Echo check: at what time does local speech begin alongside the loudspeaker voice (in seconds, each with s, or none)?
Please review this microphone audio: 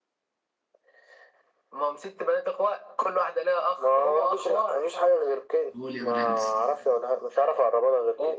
5.7 s